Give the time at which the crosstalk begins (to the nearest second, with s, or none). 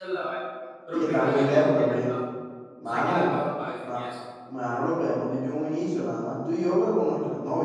1 s